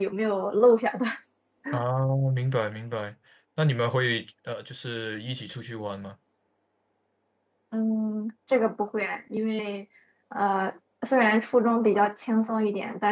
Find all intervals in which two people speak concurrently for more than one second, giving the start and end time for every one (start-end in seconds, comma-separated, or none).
none